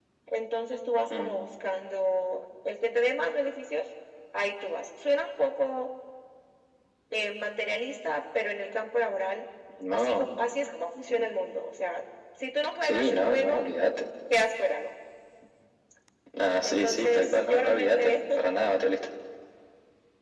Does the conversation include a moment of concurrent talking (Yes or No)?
Yes